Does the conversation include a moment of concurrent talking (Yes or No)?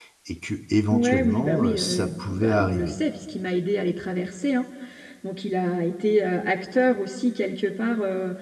Yes